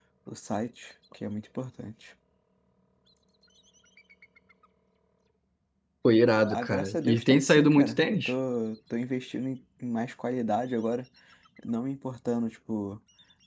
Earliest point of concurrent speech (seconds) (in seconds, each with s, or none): 6.5 s